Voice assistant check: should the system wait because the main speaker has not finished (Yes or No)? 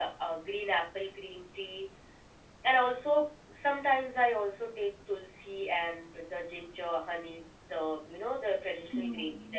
No